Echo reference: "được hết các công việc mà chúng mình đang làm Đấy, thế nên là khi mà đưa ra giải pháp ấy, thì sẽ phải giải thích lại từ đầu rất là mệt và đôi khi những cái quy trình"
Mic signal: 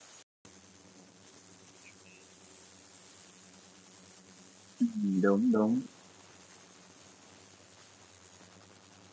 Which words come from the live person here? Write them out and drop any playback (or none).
Ừ, đúng đúng